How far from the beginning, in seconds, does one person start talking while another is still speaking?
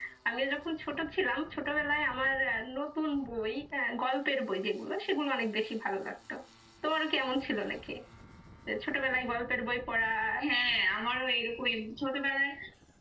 none

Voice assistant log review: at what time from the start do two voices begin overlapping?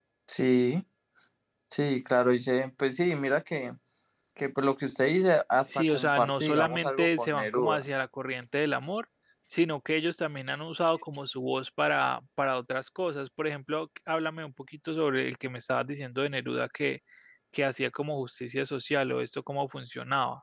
6 s

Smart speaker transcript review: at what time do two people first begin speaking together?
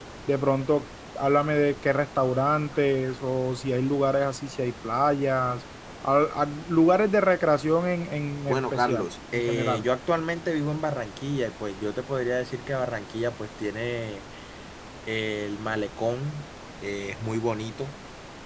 8 s

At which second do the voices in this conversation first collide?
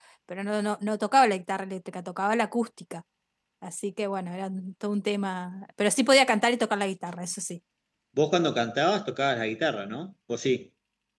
none

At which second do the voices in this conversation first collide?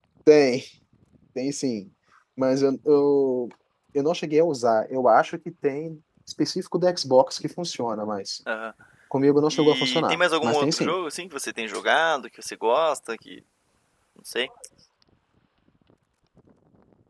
10 s

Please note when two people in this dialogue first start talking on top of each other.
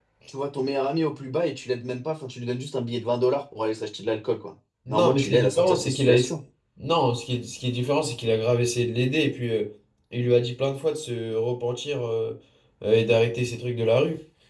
5 s

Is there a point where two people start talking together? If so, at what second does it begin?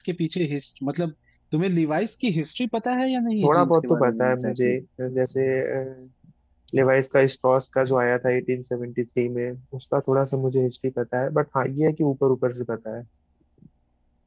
3 s

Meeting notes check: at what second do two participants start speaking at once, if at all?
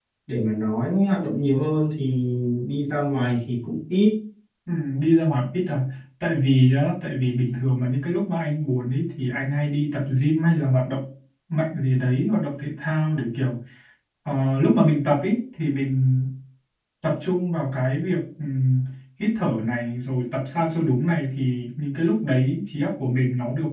none

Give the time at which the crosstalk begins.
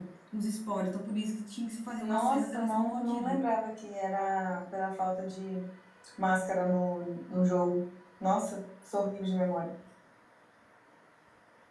2 s

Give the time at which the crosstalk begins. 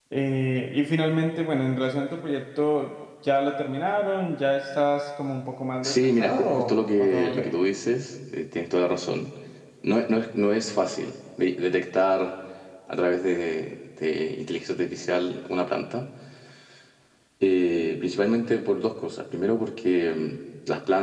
6 s

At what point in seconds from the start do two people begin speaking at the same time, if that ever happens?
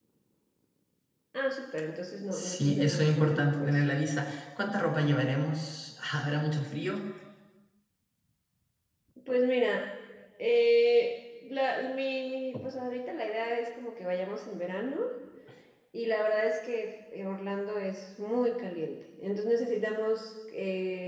2 s

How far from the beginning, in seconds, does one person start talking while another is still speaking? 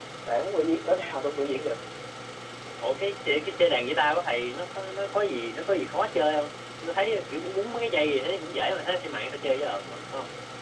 none

